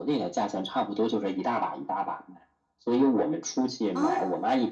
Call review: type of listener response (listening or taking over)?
listening